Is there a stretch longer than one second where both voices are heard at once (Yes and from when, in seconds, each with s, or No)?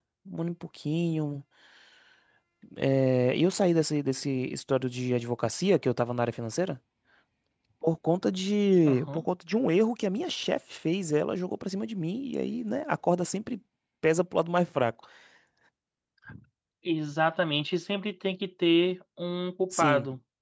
No